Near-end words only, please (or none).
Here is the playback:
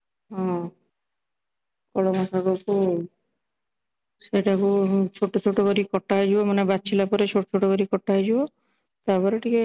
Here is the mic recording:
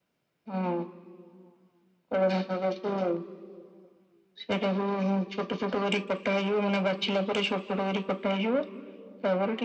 none